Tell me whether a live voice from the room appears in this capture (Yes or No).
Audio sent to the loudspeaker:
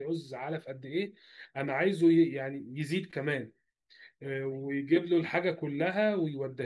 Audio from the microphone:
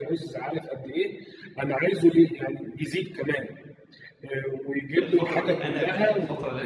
Yes